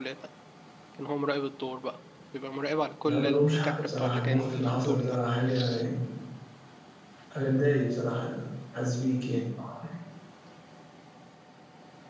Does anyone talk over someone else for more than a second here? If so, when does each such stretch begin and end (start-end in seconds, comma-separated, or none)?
3.1-5.2